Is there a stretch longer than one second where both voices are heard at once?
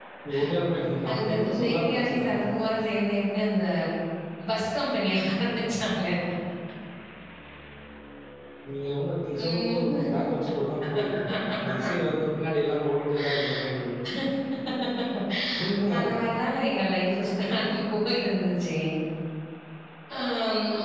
Yes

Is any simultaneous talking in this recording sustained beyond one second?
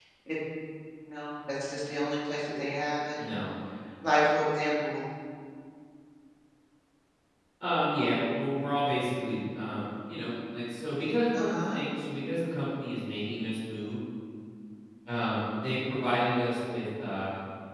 No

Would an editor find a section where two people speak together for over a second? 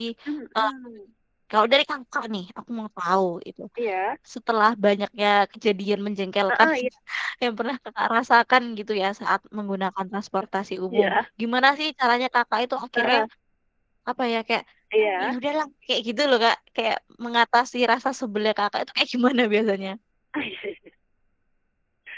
No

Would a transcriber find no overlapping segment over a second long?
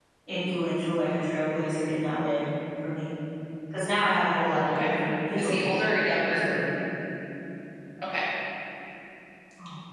Yes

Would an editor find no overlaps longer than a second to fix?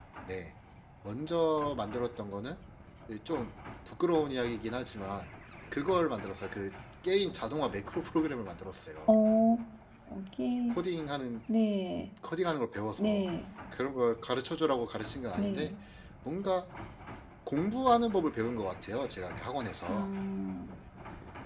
Yes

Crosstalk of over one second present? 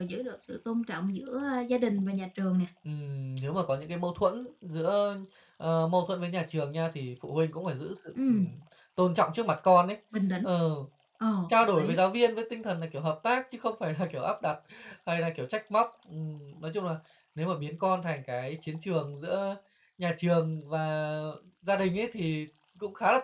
No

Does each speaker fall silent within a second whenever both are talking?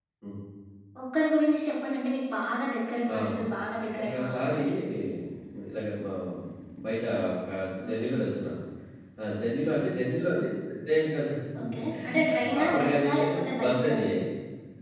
No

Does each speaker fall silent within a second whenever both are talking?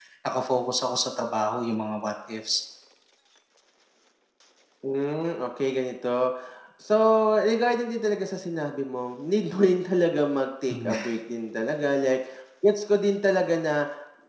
Yes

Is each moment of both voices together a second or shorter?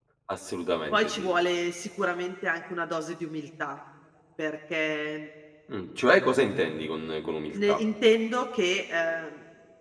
Yes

